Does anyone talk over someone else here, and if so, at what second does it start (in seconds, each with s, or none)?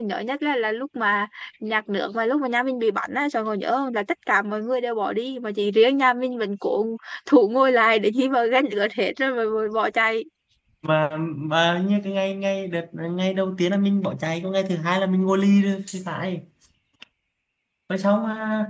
none